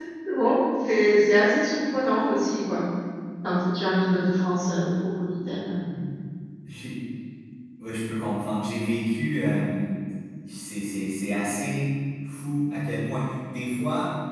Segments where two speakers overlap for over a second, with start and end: none

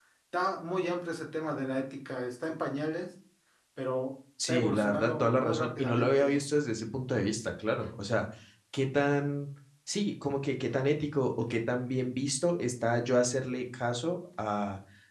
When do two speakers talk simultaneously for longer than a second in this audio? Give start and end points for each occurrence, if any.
4.5-6.4

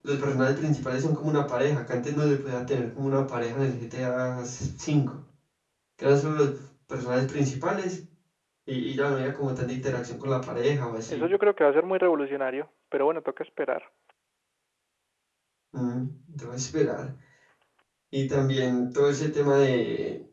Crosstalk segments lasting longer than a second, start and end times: none

